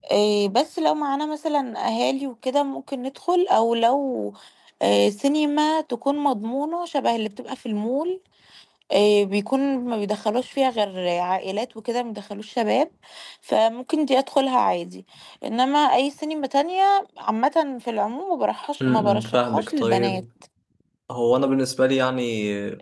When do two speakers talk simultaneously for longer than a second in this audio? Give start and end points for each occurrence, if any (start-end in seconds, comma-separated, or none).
18.8-20.2